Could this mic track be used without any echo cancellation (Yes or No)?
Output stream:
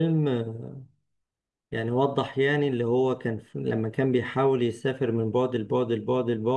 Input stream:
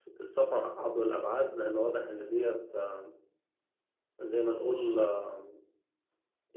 Yes